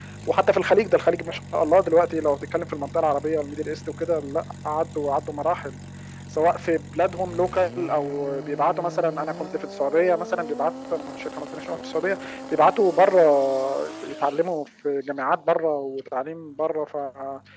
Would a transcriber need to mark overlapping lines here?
No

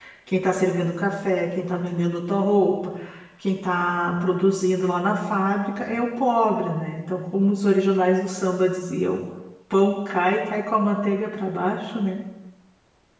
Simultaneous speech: No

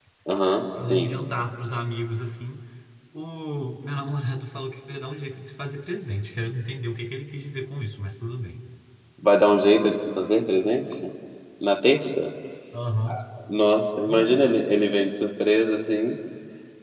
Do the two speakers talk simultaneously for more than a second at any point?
No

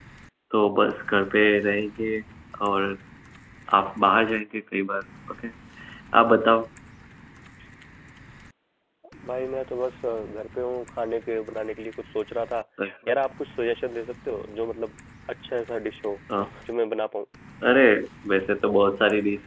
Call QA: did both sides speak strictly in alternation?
Yes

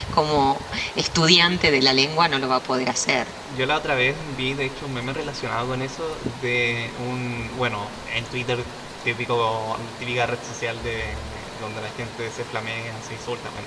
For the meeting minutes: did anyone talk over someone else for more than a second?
No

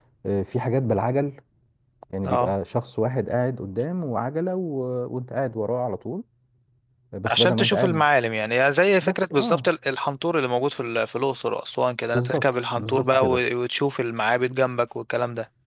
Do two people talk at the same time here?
Yes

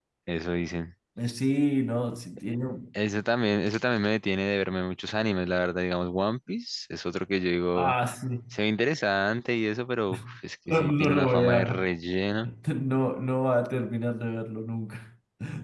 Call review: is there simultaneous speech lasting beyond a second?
Yes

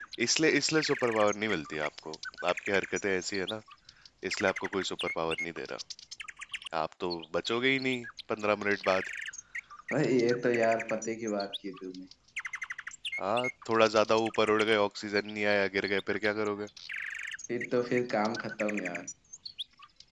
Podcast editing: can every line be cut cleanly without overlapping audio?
Yes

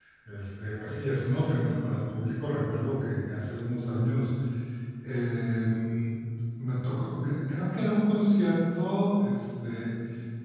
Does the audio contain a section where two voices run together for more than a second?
No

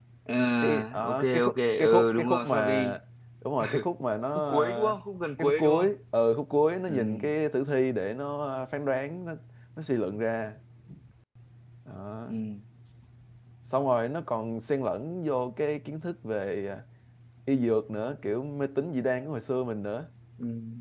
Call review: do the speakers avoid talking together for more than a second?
No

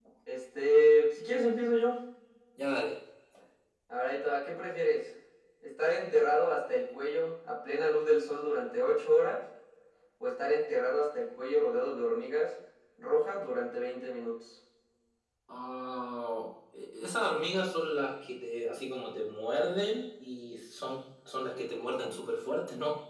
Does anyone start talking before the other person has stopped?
No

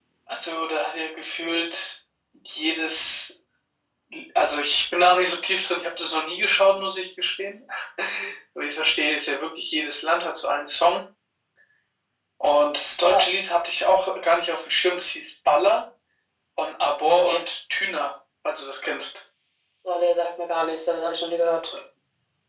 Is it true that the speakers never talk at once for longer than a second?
Yes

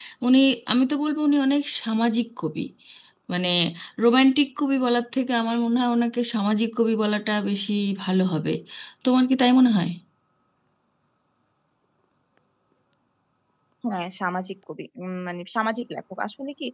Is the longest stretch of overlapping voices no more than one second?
Yes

